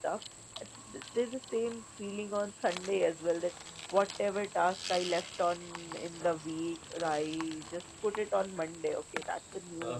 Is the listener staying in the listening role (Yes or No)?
Yes